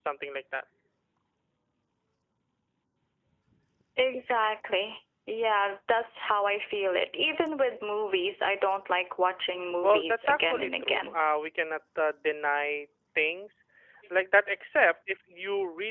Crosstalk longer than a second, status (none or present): present